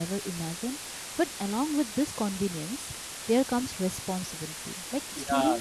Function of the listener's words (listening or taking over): listening